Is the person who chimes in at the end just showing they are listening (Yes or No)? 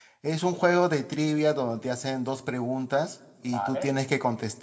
Yes